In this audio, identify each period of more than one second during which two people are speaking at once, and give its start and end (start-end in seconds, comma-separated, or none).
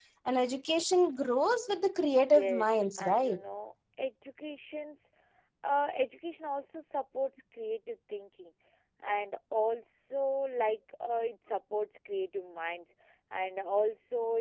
2.1-3.4